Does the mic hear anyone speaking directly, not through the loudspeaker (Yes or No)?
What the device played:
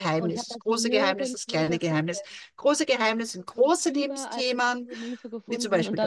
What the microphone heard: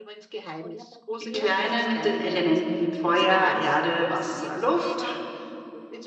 Yes